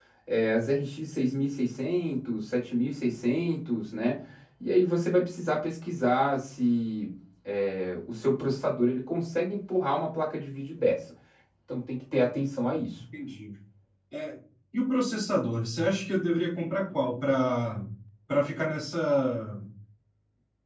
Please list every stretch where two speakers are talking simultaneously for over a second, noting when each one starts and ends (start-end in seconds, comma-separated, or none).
none